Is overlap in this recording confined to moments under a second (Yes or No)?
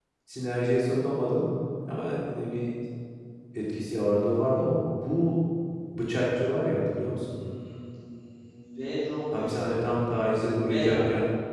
Yes